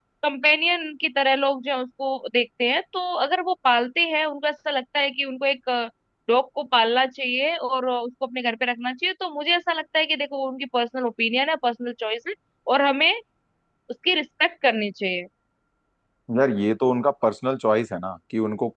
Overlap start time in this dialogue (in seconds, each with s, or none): none